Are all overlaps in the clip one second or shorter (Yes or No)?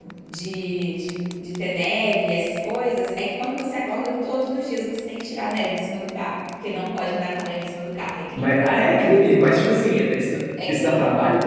Yes